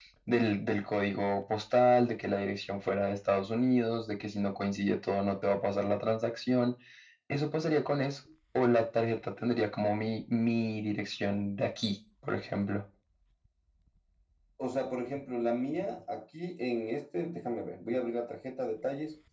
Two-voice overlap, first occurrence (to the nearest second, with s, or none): none